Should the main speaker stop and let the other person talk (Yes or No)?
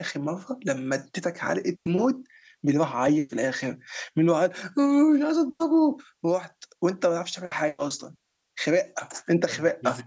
Yes